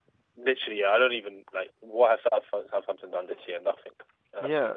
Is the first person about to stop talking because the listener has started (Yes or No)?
Yes